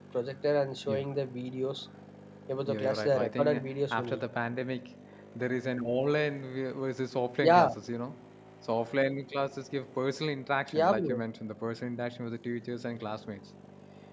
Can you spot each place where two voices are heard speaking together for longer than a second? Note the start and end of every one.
2.7-4.2

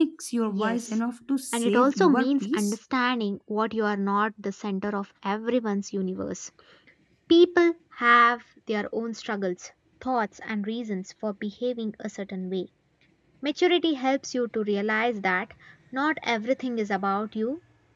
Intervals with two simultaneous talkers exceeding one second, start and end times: 1.5-2.8

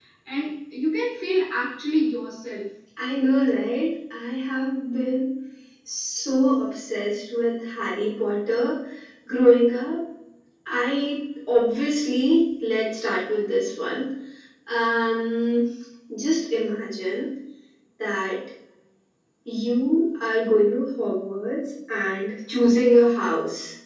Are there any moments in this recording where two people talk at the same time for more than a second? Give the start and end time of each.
none

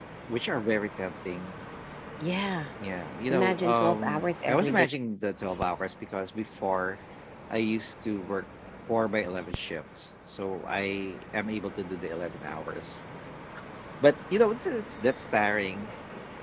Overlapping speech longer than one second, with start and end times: 3.3-4.8

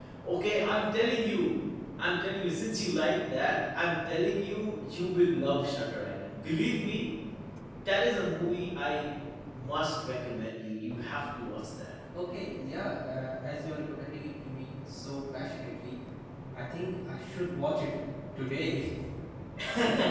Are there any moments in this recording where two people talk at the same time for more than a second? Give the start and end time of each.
none

